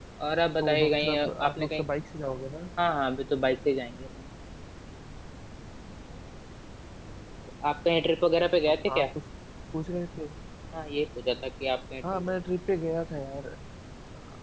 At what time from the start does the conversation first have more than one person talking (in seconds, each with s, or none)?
0.6 s